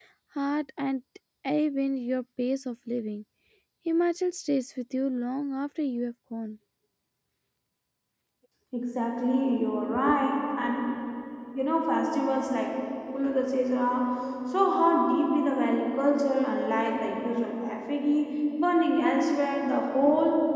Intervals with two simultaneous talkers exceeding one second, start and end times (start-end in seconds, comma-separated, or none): none